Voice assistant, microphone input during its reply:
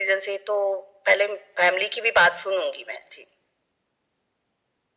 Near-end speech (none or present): none